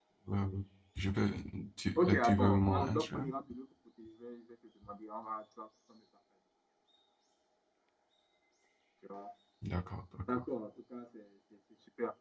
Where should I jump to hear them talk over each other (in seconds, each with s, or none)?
2.0 s